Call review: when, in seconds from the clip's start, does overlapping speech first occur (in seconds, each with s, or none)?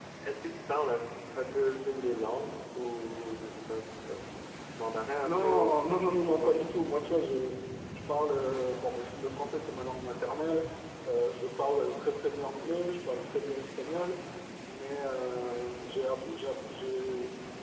5.2 s